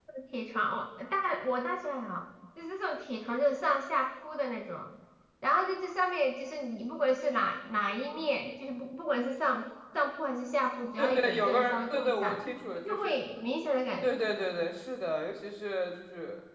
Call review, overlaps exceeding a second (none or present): present